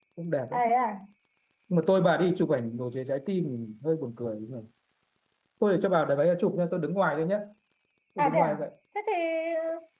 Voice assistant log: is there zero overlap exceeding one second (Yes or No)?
Yes